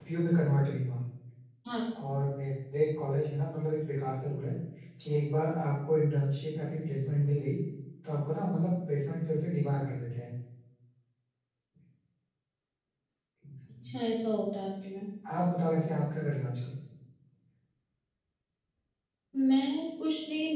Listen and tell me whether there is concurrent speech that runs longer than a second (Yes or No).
No